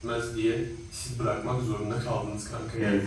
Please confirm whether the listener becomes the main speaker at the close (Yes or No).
Yes